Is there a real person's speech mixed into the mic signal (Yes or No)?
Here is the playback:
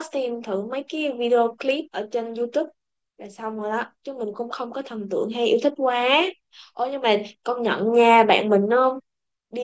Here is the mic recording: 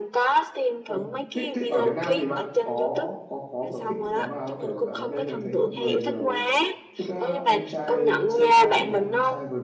Yes